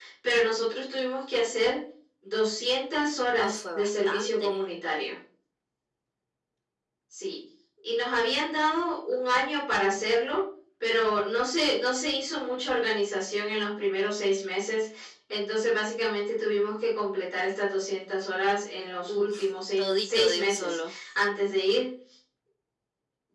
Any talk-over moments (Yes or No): Yes